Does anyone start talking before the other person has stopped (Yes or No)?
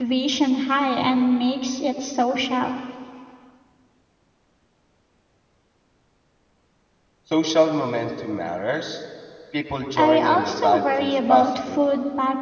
Yes